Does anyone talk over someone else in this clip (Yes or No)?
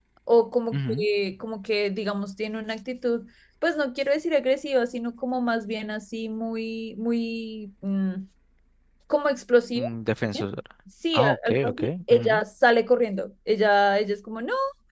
Yes